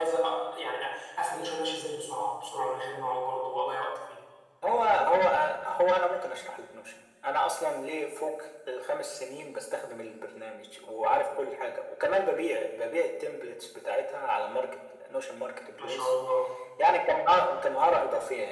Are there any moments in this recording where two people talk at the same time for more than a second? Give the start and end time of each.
none

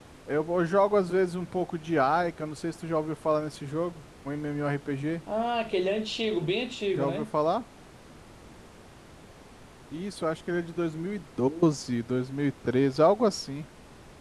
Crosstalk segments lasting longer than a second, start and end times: none

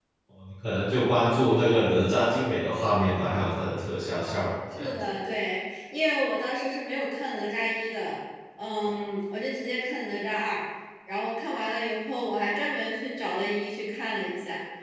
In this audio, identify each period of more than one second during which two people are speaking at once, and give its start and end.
none

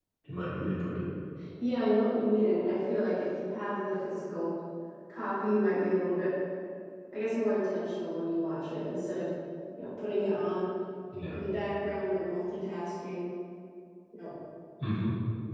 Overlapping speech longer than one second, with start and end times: none

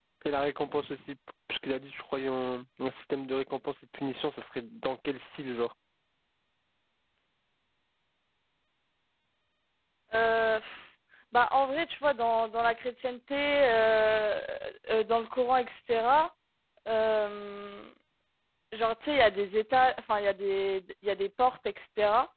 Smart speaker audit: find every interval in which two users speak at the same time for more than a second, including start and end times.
none

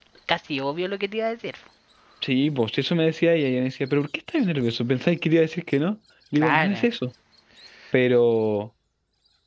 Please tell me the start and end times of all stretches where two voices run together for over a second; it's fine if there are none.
none

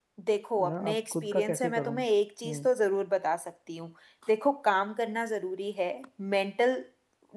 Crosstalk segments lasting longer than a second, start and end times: 0.6-2.0

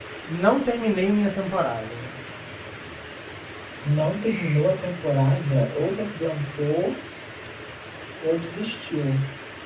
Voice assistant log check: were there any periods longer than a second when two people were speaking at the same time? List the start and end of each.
none

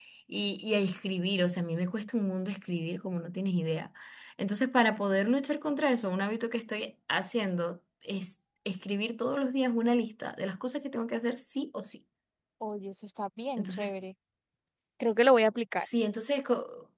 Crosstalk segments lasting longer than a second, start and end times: none

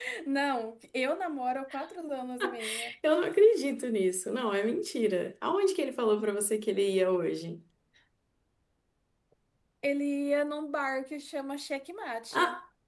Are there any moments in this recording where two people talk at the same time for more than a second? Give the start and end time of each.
none

